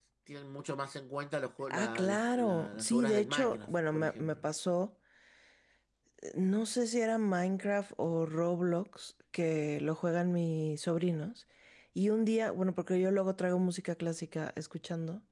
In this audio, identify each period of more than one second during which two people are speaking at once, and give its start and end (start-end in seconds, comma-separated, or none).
1.7-4.4